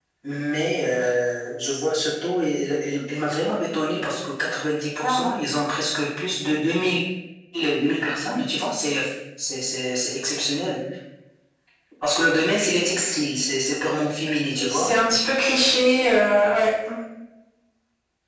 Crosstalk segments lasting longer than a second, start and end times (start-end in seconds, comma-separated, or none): none